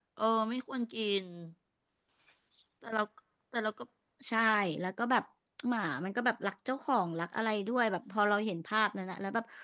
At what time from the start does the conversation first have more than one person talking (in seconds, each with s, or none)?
none